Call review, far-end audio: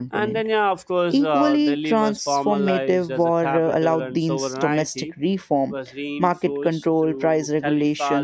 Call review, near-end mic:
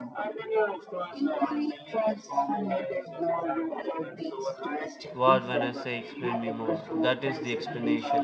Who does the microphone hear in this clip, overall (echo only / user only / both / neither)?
both